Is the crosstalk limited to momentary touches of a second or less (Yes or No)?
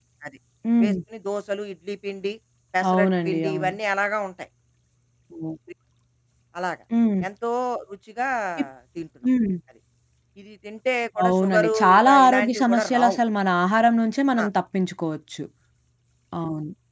No